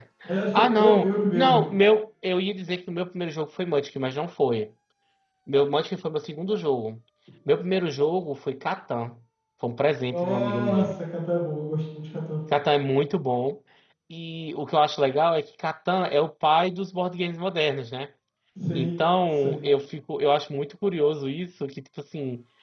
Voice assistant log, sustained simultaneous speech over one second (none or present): present